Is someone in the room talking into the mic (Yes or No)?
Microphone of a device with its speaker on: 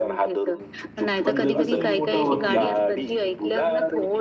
Yes